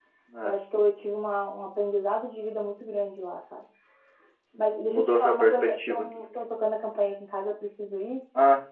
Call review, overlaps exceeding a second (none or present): present